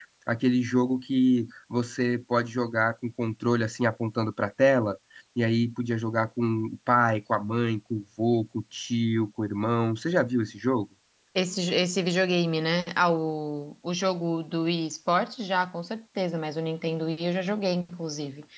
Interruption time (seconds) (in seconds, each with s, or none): none